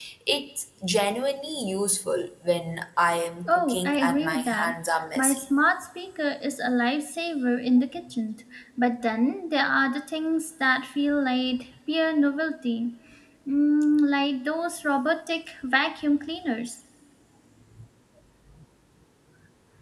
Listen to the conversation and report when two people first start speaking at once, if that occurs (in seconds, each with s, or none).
3.5 s